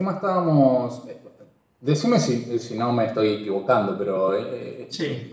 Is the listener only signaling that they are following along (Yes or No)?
Yes